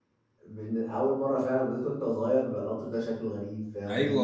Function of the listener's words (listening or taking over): taking over